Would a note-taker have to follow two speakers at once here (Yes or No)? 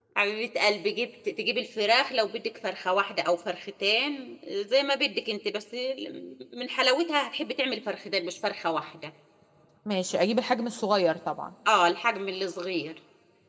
No